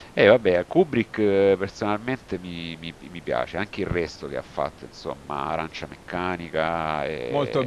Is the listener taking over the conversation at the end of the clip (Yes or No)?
Yes